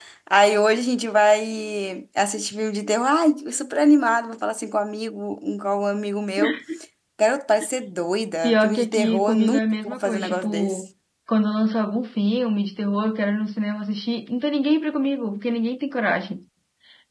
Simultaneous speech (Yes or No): Yes